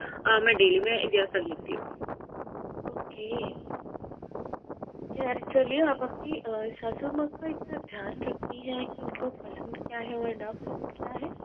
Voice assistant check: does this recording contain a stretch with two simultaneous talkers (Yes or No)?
No